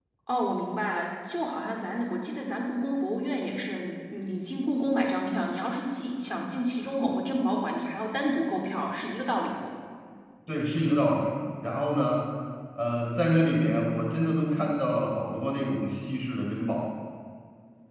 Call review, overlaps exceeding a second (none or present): none